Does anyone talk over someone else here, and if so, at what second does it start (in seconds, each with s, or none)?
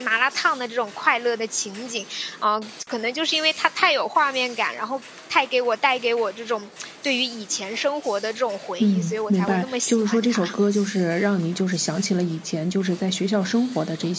8.8 s